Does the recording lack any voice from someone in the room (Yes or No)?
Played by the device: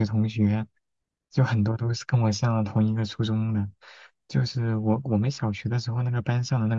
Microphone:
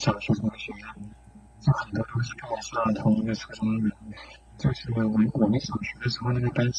Yes